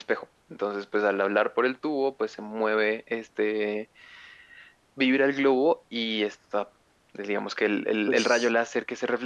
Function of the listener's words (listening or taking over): listening